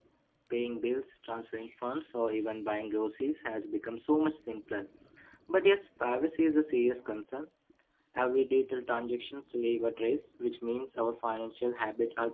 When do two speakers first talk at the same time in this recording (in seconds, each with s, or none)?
none